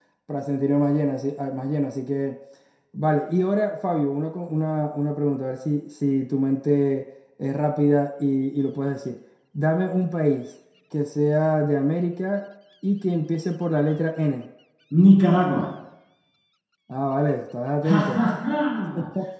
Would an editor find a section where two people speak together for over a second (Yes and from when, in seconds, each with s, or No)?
No